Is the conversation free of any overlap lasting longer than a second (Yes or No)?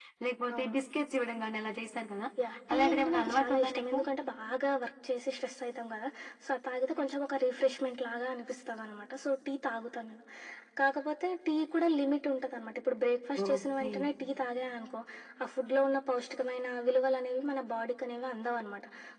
No